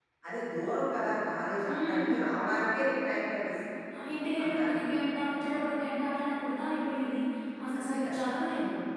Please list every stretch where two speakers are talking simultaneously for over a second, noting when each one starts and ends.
none

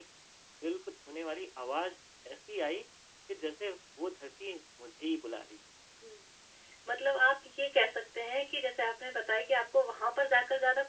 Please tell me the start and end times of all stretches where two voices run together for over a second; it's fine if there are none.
none

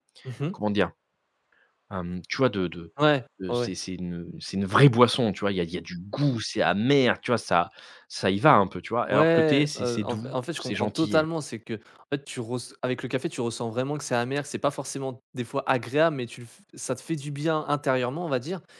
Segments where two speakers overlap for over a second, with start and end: 9.1-11.2

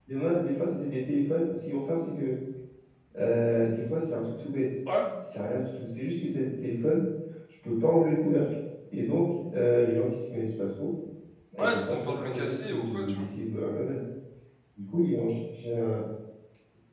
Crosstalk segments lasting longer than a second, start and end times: 11.6-13.3

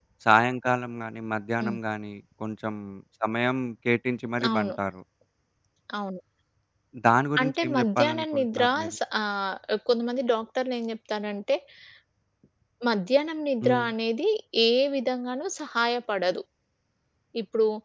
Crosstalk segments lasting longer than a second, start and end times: 7.4-9.0

